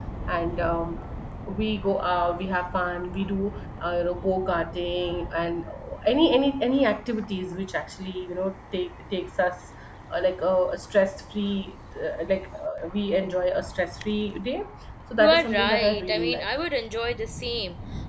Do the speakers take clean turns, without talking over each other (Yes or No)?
No